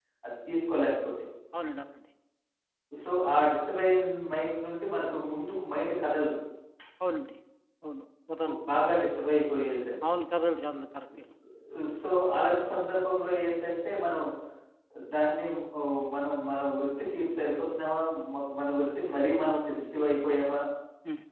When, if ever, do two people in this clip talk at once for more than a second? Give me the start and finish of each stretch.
none

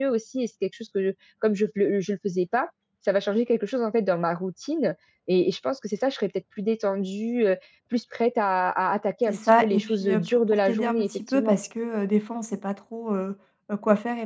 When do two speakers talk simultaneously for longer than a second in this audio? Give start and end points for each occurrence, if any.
9.3-11.6

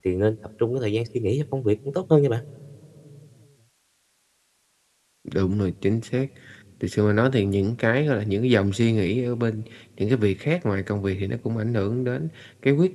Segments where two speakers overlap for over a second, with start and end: none

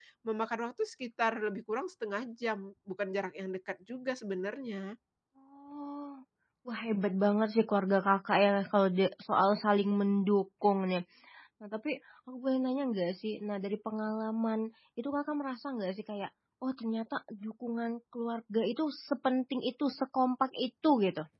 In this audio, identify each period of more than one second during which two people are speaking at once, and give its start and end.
none

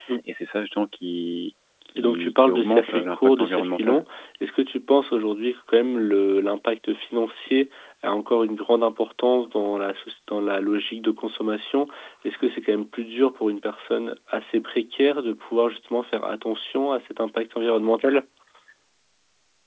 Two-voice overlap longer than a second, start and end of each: 1.9-4.0

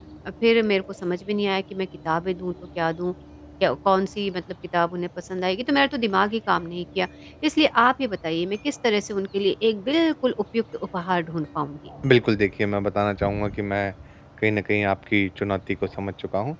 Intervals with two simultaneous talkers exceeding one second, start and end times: none

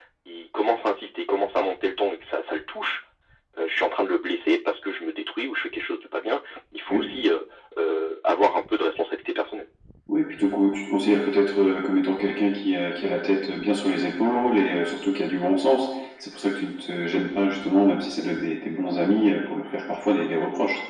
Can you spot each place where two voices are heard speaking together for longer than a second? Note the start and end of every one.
none

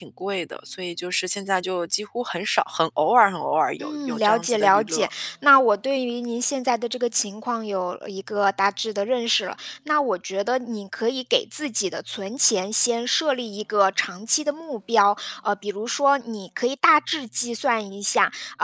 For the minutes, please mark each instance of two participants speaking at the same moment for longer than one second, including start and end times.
3.8-5.1

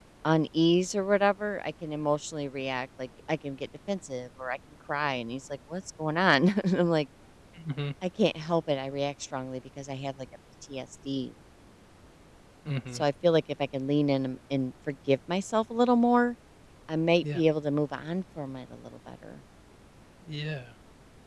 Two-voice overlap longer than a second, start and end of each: none

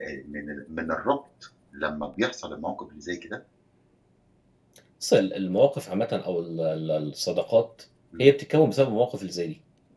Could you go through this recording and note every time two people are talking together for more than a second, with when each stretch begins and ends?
none

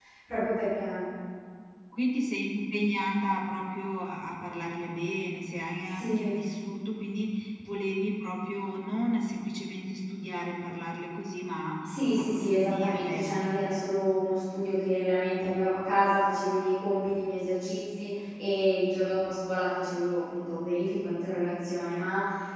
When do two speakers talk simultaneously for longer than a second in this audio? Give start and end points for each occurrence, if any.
12.2-13.4

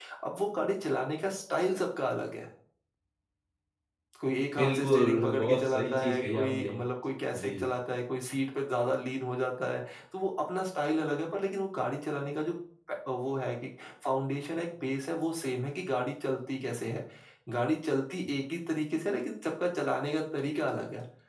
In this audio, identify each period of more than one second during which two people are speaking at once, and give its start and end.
4.6-6.8

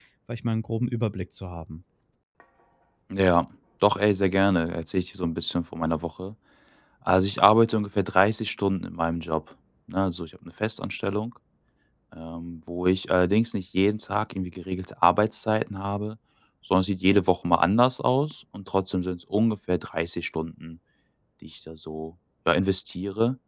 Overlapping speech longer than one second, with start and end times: none

